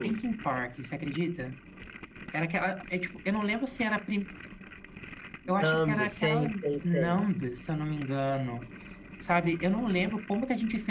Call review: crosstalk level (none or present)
present